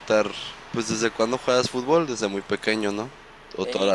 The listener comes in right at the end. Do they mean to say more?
Yes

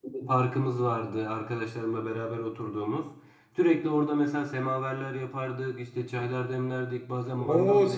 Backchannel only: No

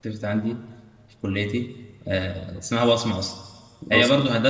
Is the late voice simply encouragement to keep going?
Yes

